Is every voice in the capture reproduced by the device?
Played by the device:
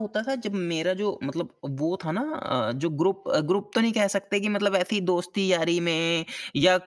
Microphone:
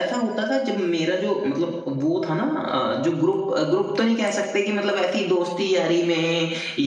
Yes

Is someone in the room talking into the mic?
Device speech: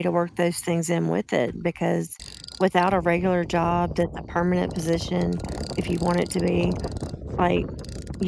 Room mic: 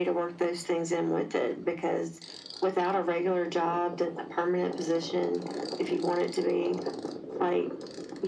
No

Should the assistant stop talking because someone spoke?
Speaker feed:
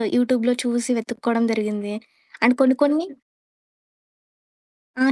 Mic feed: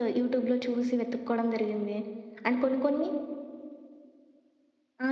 No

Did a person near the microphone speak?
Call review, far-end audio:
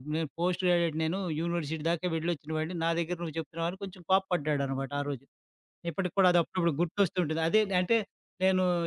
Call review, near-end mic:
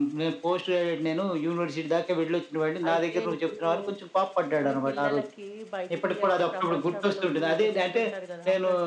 Yes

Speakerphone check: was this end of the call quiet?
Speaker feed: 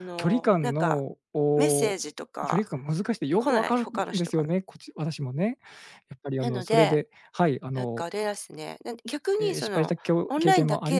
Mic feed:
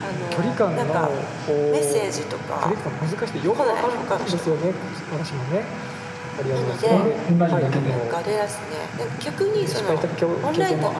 No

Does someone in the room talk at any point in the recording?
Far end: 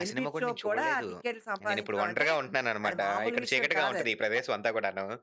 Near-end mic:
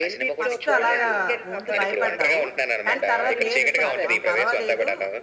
Yes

